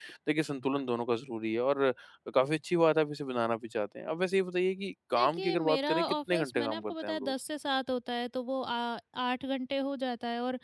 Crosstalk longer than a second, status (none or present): present